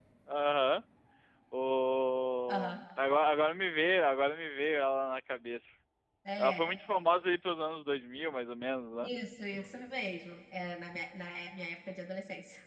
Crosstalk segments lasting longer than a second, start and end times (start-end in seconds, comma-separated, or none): none